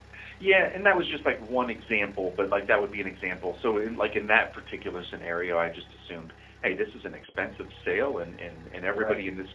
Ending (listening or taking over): listening